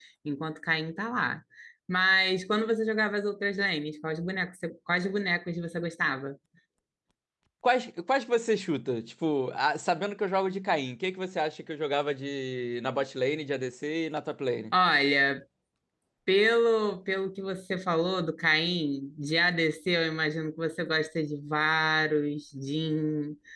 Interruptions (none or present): none